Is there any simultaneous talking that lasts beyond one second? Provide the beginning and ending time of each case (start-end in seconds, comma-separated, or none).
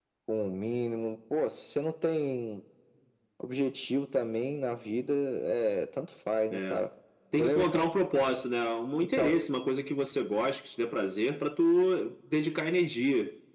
none